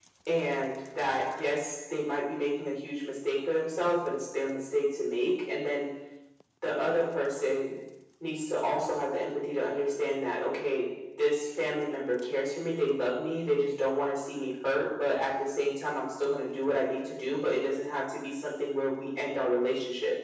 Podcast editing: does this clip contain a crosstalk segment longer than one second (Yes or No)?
No